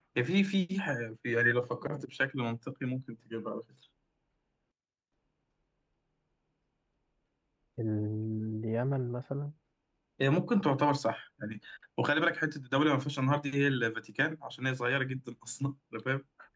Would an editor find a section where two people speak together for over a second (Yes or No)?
No